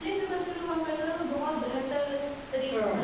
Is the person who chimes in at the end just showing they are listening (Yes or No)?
No